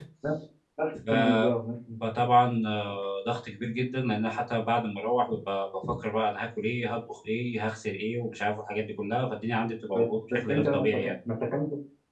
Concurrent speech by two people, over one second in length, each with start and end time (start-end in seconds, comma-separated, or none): 9.9-11.1